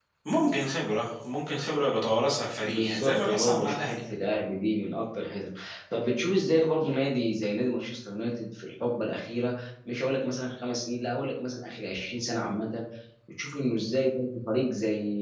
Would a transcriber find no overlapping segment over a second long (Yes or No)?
No